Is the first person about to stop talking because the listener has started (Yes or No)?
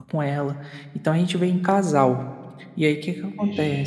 No